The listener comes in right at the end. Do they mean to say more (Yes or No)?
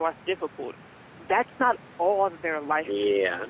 Yes